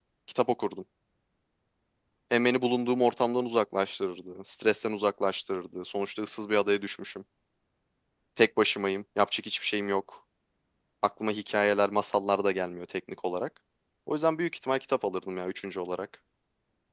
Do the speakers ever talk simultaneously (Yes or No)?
No